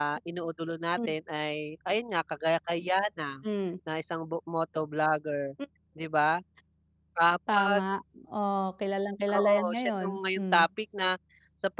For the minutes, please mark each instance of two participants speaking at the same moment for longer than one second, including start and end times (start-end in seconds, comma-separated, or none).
9.3-10.6